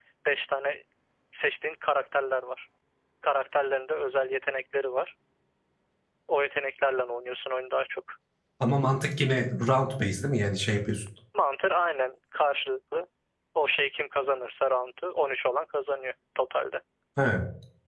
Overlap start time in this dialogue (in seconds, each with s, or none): none